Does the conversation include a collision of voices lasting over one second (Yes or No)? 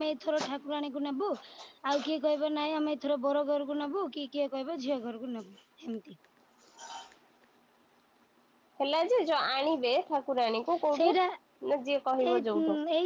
No